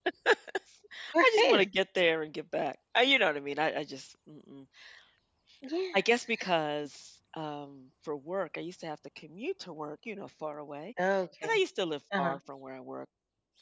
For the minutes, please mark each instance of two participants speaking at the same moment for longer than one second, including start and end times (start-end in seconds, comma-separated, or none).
none